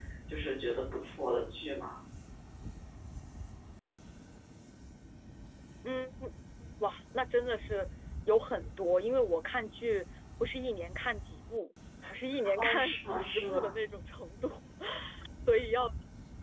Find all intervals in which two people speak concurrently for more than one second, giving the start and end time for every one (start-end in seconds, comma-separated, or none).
12.6-13.8